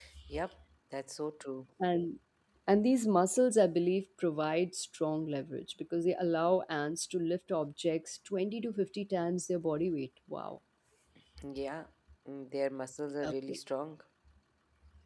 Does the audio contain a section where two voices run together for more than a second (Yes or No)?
No